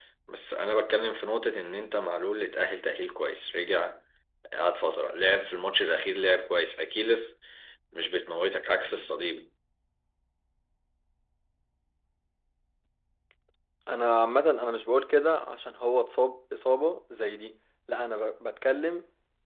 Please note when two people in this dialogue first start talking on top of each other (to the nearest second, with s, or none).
none